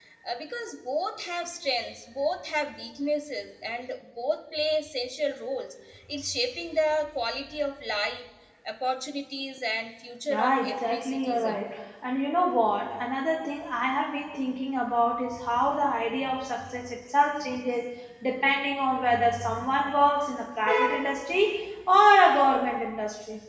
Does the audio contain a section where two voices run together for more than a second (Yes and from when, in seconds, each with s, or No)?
Yes, from 10.2 s